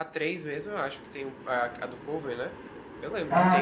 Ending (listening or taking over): listening